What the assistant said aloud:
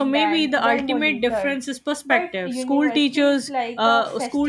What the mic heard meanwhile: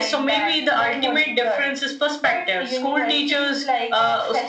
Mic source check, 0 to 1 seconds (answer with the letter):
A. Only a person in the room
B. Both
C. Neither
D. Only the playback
D